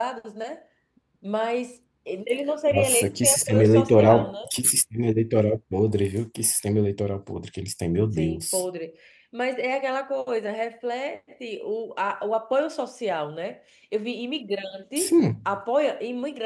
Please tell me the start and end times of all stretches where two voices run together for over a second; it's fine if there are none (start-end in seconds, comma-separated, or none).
2.7-4.3